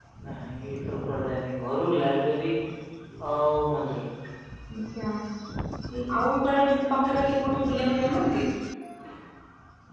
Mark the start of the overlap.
none

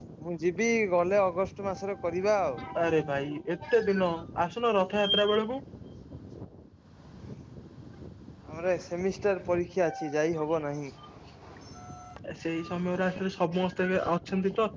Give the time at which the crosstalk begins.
none

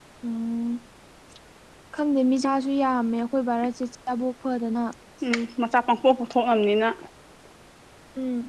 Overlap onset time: none

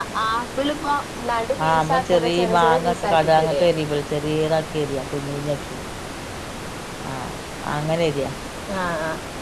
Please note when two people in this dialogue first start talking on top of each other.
1.6 s

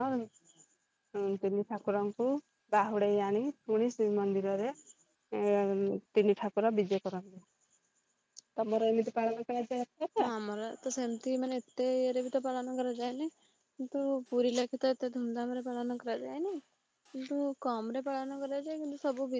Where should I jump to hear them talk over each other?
none

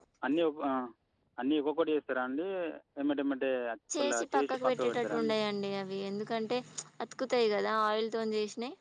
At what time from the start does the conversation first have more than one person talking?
4.0 s

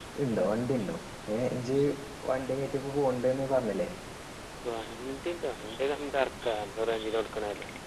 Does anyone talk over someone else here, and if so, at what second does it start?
none

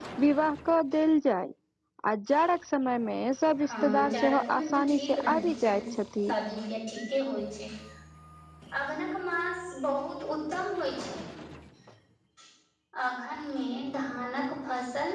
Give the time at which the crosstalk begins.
3.6 s

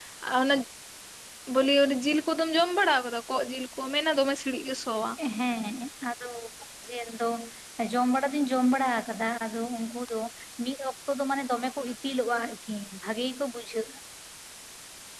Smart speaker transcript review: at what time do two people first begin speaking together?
none

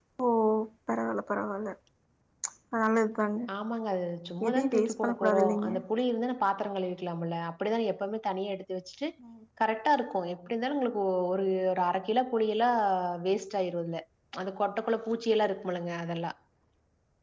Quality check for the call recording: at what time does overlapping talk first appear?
4.5 s

